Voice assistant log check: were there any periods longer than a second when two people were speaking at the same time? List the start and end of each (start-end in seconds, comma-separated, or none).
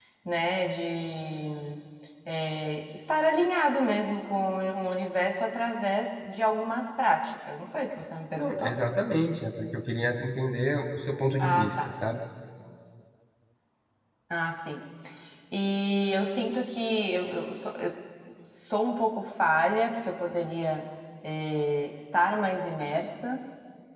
none